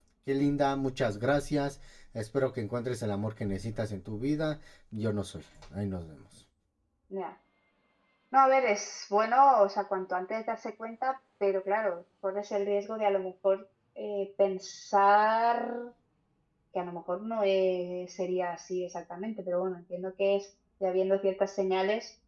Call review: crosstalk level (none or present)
none